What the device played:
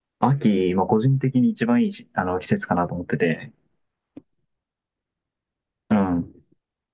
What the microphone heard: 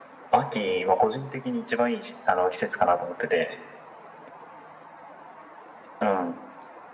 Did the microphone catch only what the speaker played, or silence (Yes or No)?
Yes